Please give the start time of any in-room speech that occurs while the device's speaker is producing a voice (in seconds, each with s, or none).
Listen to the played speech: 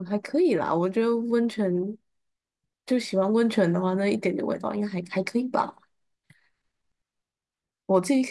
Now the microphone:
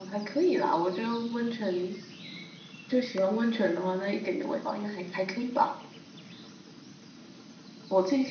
none